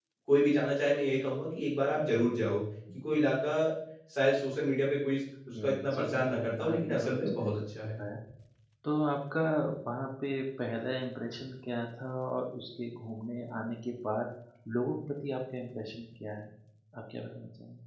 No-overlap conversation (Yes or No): No